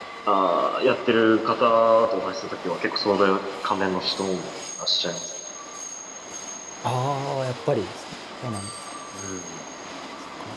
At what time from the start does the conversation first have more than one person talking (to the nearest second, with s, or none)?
none